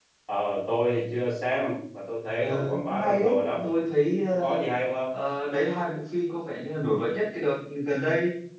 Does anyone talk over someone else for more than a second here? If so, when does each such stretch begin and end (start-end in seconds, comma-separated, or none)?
2.4-3.7